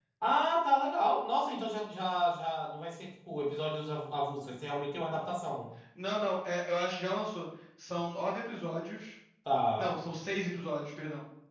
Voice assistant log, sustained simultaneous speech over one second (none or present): none